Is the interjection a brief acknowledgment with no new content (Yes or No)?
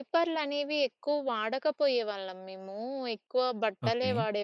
Yes